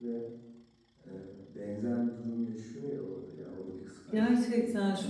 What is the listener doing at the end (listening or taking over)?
taking over